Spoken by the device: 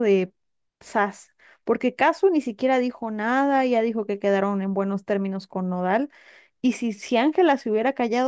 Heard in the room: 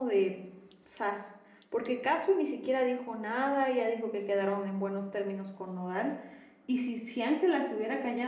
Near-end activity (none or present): none